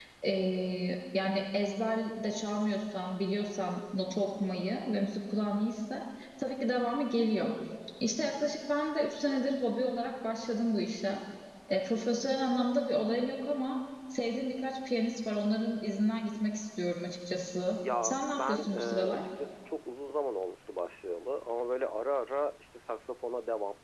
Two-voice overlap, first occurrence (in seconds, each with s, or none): 17.8 s